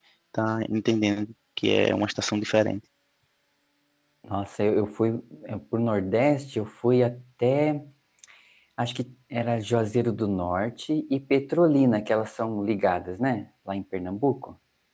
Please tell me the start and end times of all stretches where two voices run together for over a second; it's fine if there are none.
none

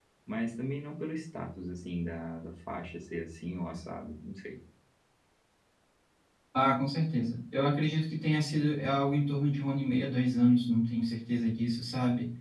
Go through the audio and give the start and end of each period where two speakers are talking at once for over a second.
none

